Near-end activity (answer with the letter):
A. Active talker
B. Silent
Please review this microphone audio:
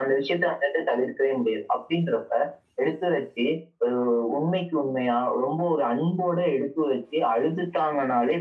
B